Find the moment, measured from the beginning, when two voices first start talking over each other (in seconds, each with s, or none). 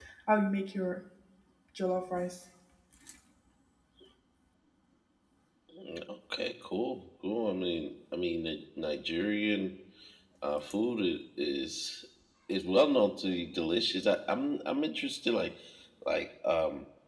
none